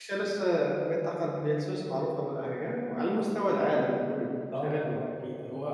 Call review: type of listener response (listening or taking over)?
taking over